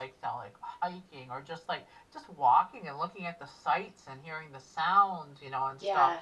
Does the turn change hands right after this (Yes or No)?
Yes